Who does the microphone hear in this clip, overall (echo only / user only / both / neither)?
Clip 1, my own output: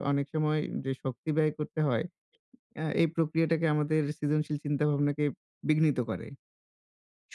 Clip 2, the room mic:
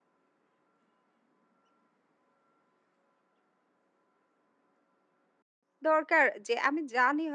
user only